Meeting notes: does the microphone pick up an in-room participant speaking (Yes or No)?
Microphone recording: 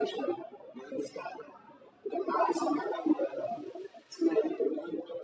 No